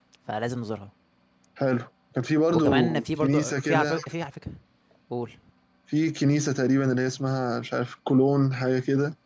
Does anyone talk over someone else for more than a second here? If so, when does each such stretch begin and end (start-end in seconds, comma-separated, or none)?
2.5-4.0